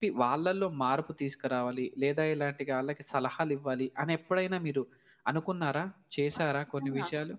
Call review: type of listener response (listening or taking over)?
taking over